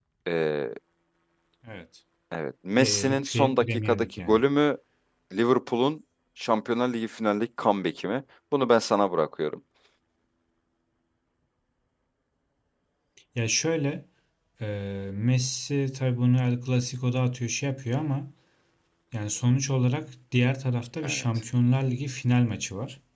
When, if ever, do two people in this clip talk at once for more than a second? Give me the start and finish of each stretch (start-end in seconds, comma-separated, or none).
2.8-4.4